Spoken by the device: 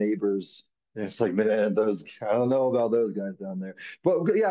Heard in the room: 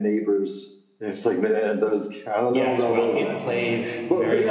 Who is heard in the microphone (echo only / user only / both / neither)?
both